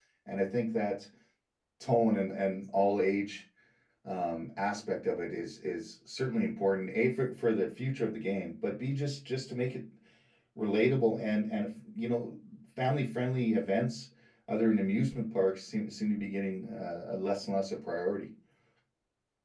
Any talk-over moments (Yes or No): No